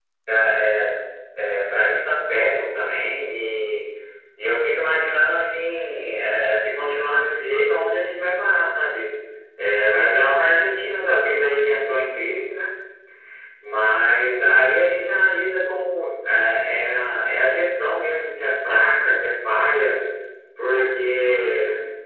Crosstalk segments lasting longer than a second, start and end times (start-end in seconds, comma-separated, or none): none